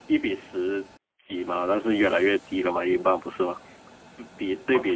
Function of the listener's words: taking over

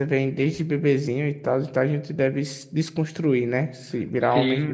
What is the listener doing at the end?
taking over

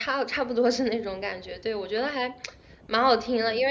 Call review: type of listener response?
listening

